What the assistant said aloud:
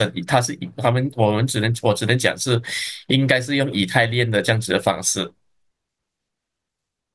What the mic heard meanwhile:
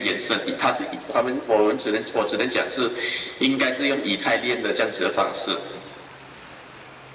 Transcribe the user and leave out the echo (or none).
none